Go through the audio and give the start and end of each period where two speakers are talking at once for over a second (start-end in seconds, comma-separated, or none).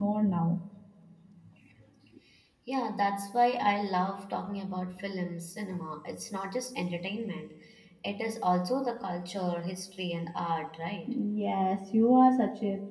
none